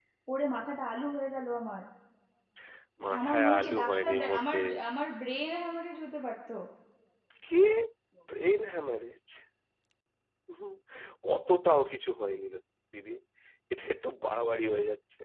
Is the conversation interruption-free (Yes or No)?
No